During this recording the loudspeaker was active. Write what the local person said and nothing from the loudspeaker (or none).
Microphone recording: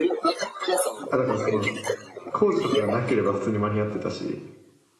あだからその工事とかがなければ普通に間に合ってたし、